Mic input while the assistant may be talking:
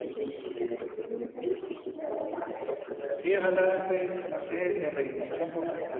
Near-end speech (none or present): present